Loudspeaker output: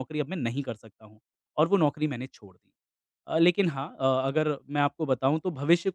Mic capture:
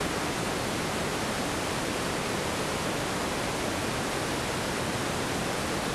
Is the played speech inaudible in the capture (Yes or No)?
Yes